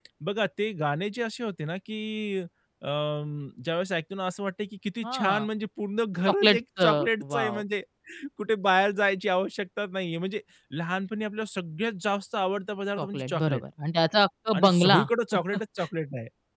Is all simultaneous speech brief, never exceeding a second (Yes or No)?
No